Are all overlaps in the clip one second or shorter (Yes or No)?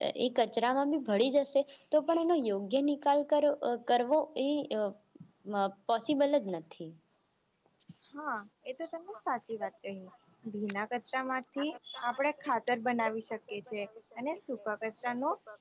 Yes